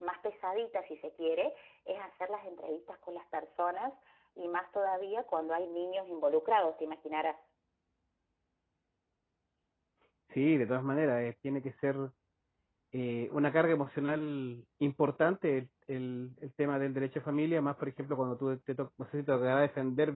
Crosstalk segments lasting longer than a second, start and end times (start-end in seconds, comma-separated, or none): none